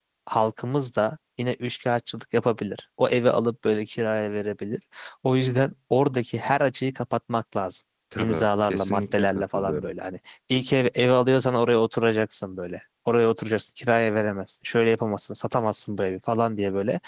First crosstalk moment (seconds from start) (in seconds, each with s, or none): 8.1 s